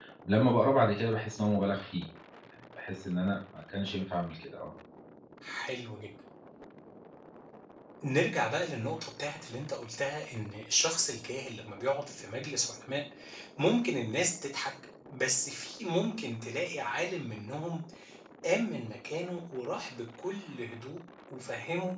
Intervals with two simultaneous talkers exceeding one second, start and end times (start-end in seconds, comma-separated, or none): none